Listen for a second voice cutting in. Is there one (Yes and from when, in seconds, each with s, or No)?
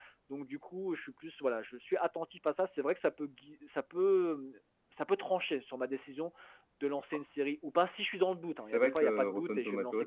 Yes, from 8.6 s